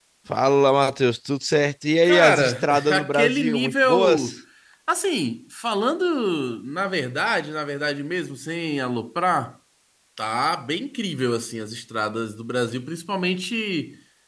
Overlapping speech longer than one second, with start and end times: 2.0-4.4

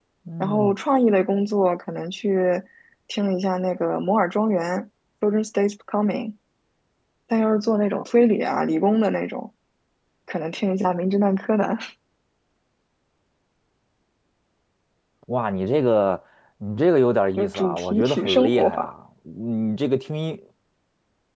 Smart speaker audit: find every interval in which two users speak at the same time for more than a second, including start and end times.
17.4-18.9

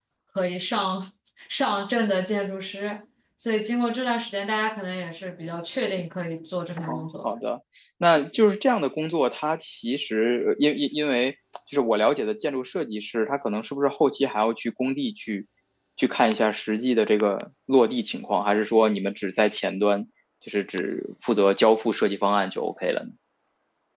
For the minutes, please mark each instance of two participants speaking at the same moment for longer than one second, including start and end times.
none

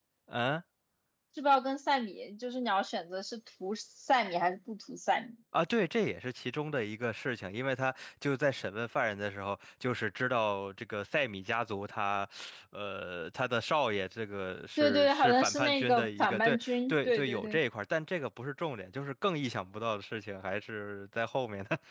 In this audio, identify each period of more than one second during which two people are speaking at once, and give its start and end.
14.8-17.6

